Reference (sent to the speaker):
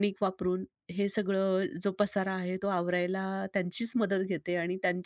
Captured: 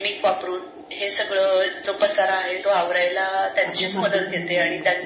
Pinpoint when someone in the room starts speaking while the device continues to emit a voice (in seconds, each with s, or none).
3.6 s